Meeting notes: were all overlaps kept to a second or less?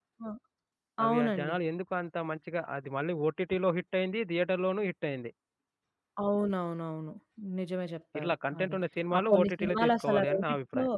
No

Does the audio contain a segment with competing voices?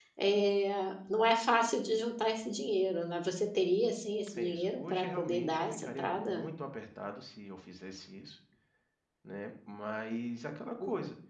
Yes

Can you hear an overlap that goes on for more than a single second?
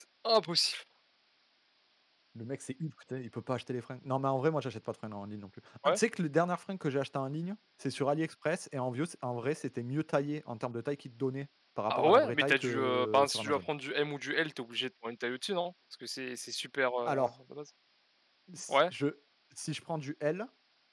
Yes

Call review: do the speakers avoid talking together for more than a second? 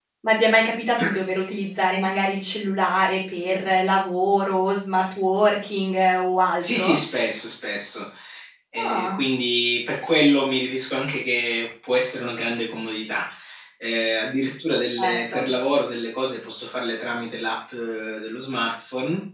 Yes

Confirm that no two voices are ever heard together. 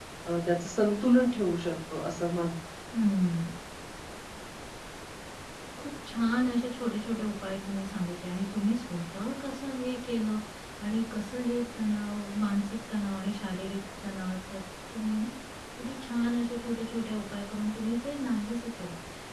Yes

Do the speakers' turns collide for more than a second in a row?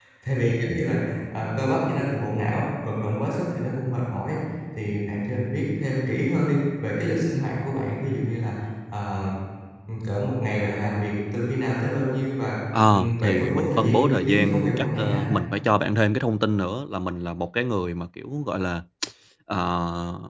Yes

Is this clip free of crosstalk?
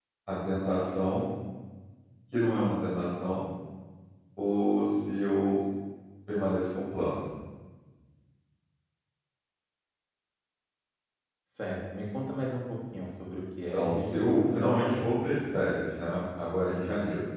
No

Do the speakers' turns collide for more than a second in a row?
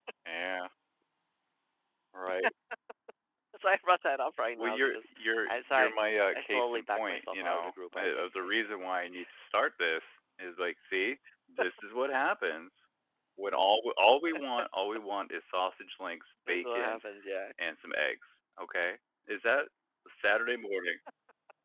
Yes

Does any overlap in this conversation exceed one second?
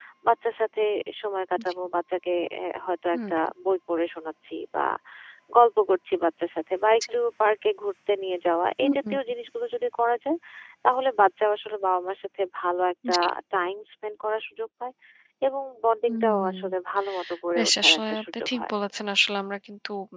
Yes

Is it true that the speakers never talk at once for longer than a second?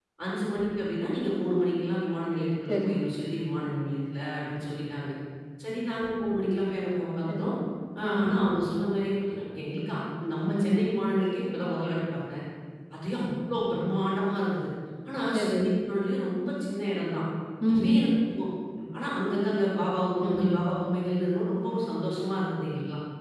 Yes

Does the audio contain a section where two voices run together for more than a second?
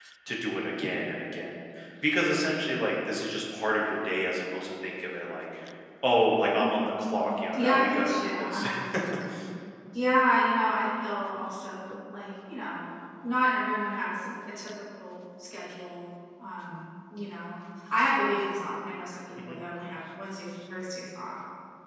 Yes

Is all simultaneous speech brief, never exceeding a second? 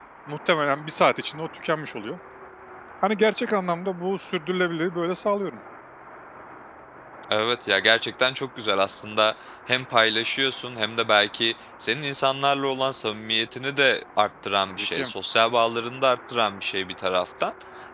Yes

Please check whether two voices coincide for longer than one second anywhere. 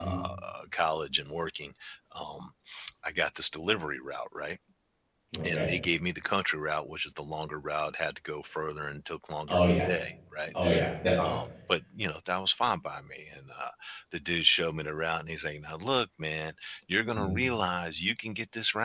No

